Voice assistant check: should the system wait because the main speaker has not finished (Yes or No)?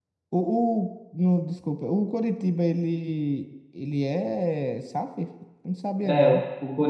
No